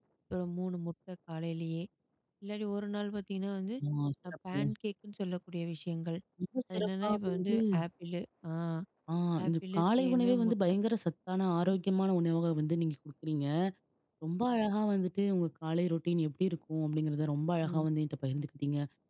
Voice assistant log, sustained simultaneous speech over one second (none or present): present